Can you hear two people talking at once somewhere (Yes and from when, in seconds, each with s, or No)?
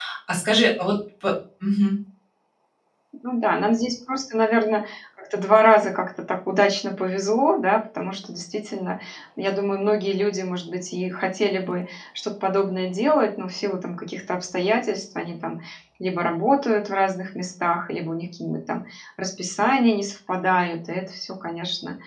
No